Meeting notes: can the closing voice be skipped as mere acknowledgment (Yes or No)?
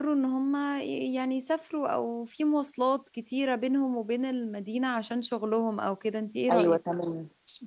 No